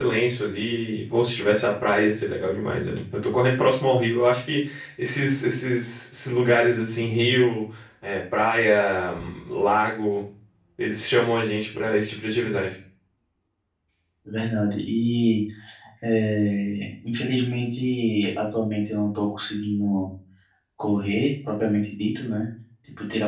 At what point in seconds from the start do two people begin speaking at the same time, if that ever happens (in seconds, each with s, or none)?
none